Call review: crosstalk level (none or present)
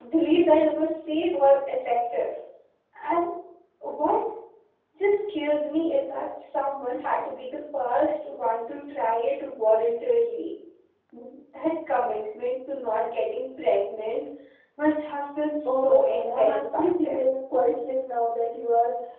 present